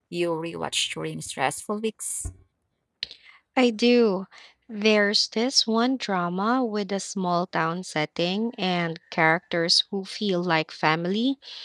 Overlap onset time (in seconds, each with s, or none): none